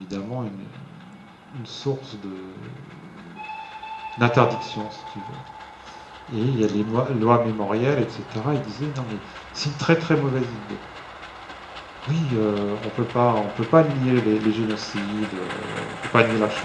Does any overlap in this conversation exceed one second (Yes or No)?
No